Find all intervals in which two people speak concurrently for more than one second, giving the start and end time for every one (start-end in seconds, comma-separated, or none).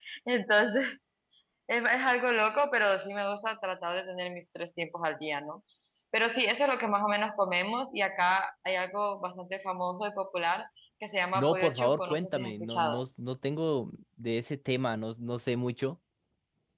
11.3-13.0